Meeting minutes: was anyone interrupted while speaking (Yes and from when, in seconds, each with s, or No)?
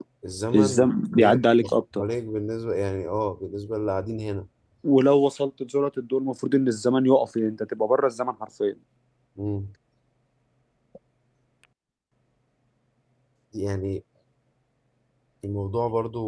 Yes, from 0.5 s